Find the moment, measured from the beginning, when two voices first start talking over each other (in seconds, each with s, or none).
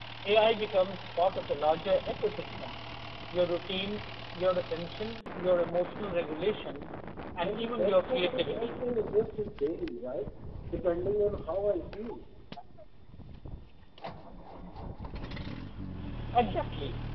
7.4 s